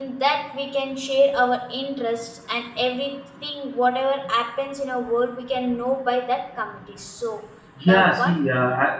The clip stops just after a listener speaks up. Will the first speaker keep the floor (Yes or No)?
No